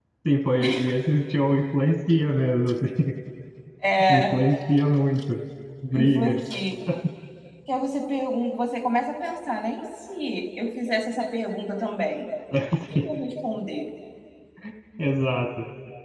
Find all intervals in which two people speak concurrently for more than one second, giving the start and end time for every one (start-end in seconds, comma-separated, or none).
none